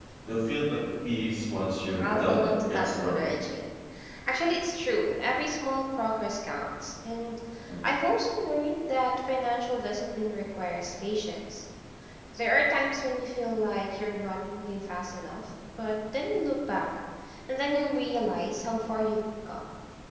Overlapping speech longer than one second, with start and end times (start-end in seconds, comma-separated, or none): 2.0-3.3